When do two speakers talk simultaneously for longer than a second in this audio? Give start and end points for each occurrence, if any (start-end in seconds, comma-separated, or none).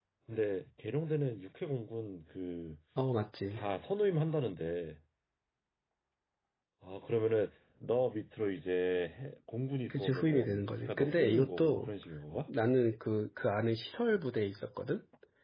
9.9-11.9